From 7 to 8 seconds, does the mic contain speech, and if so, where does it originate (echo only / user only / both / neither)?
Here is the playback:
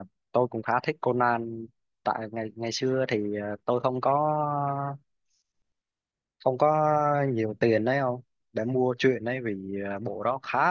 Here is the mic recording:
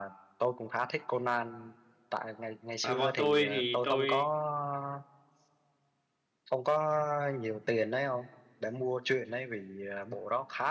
echo only